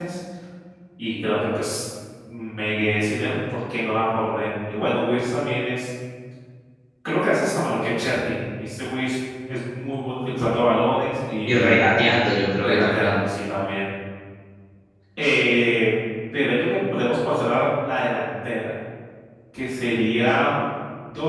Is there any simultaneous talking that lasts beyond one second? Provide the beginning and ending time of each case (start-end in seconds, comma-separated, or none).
none